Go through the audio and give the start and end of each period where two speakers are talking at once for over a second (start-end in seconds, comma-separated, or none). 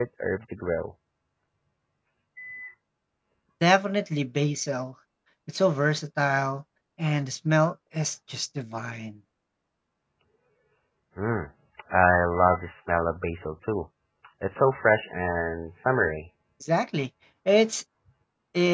none